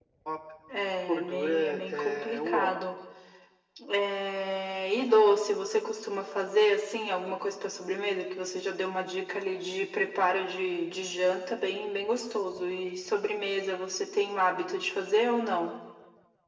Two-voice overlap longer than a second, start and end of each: 1.1-2.7

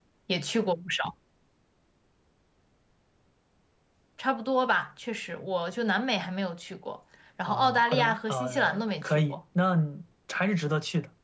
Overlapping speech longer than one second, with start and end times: 7.5-9.4

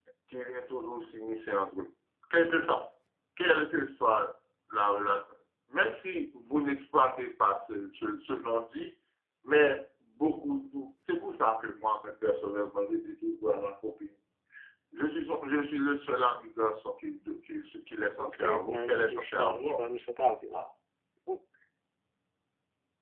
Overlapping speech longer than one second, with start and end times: 18.2-19.8

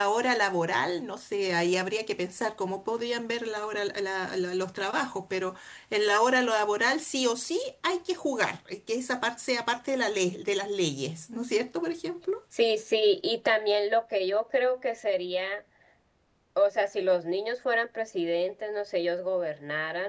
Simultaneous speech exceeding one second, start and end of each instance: none

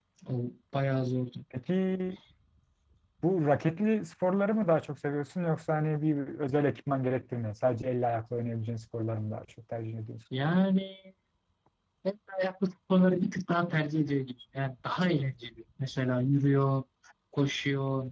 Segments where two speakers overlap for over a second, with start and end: none

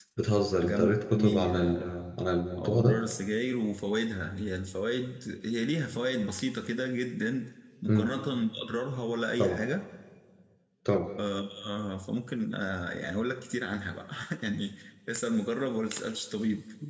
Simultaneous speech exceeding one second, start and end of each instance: 0.6-1.8

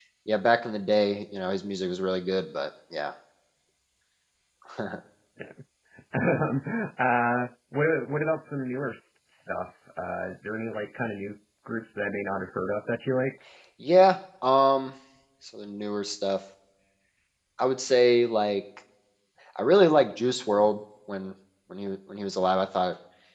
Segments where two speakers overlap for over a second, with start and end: none

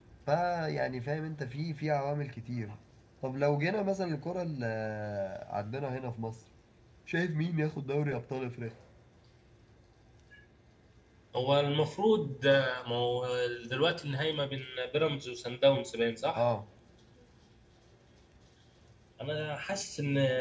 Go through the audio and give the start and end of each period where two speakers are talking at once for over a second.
none

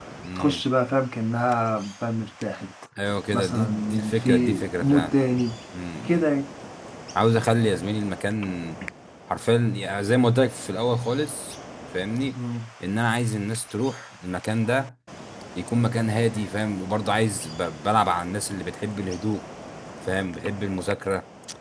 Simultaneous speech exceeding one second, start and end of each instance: 3.3-5.1

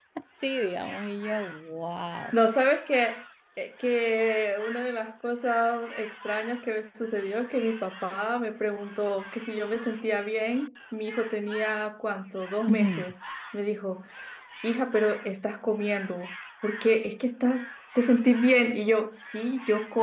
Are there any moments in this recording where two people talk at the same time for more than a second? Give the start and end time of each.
none

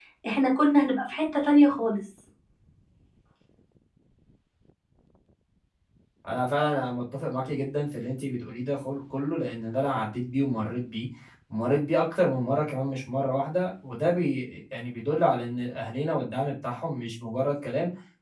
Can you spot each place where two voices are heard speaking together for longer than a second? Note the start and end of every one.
none

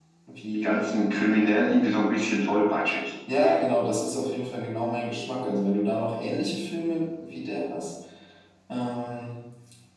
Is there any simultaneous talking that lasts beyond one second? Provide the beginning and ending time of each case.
none

